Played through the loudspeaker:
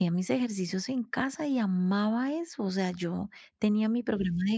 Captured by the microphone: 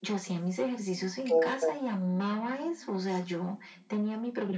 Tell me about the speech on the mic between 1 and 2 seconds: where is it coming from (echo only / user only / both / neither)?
both